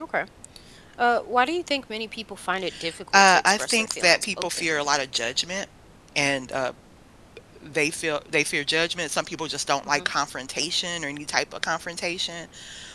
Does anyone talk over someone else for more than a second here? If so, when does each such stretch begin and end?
3.1-4.7

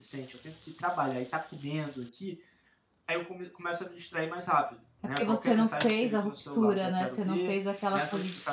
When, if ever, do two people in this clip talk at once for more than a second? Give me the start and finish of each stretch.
5.2-7.5

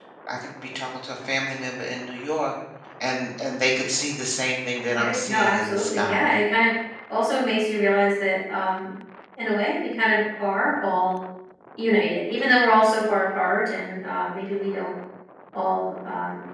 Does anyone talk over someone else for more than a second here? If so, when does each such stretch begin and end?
5.0-6.4

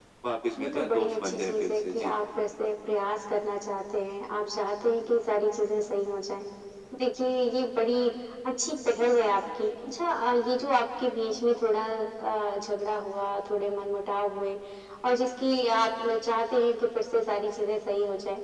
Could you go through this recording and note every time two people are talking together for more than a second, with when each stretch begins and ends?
0.6-2.1

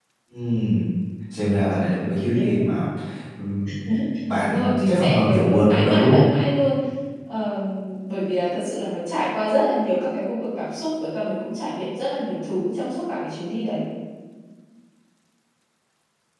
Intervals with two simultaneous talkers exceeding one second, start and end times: 4.3-6.2

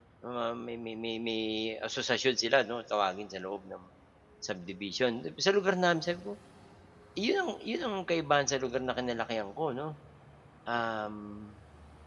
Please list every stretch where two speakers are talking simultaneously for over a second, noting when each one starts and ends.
none

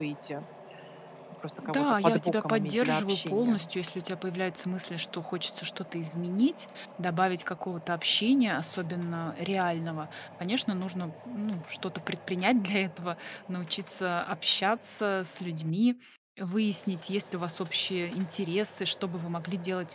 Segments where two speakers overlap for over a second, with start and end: 1.6-3.7

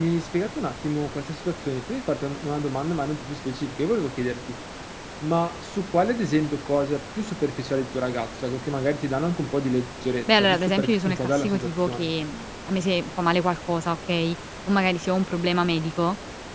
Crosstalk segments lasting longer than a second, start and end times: 10.3-12.1

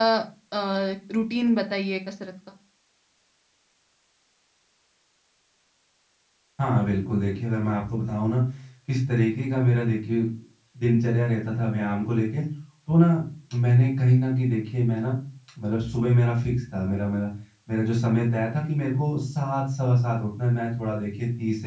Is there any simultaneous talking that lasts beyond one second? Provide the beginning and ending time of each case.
none

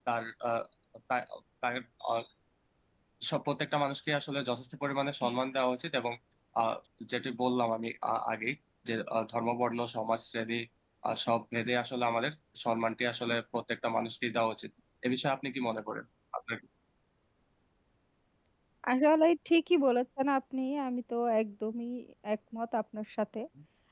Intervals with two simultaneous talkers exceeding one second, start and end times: none

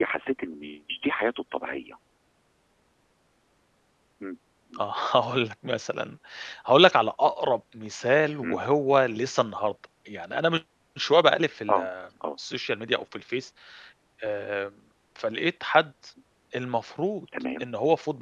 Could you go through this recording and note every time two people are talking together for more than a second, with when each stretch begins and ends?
none

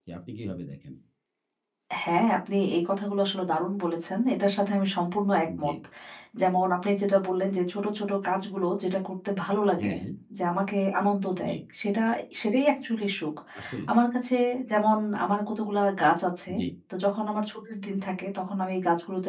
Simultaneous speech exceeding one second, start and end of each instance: none

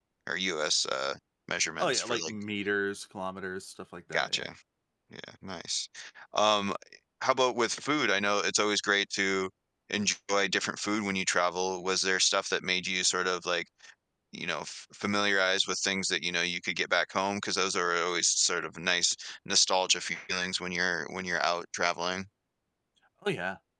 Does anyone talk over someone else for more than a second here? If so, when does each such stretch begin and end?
none

